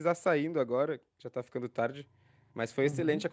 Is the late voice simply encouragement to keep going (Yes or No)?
Yes